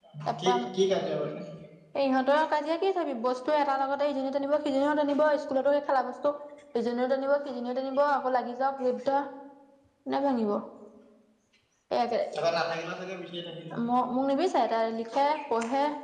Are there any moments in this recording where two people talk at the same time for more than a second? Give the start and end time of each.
none

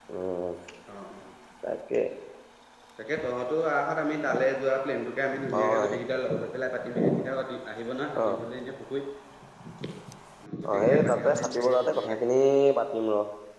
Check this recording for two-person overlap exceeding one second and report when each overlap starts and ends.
10.7-12.2

